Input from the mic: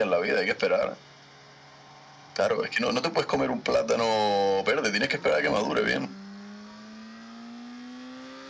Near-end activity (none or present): none